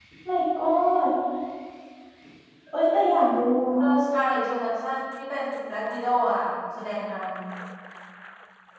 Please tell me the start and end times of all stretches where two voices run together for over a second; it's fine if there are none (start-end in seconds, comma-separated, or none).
none